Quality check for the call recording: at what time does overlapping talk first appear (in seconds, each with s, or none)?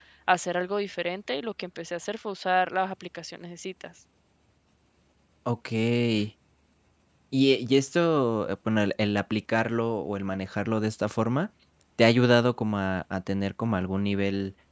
none